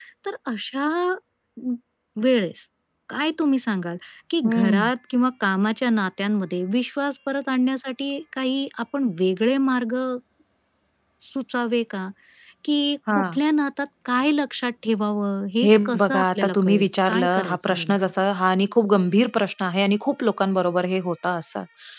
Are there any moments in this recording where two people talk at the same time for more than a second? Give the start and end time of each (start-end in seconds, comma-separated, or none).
15.6-18.0